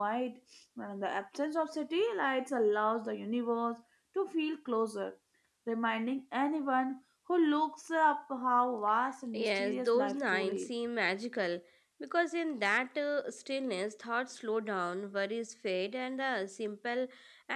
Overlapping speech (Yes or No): Yes